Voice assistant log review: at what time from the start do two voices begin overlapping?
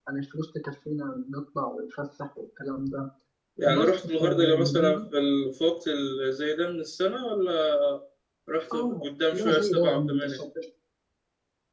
3.6 s

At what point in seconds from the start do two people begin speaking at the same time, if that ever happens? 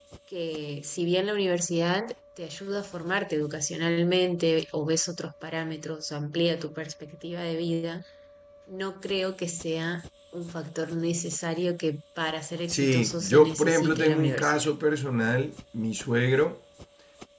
12.7 s

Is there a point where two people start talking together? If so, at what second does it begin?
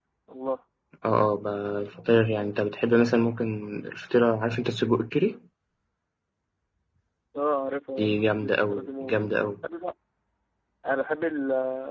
8.0 s

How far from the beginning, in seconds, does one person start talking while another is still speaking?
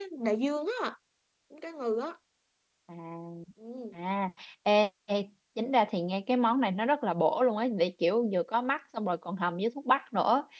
none

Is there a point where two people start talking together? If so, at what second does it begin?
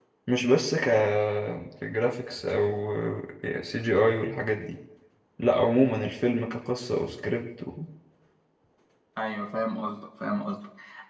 none

